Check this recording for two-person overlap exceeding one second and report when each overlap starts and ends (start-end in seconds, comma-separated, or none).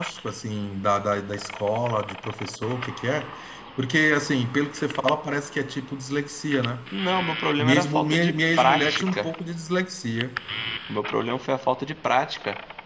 7.6-9.3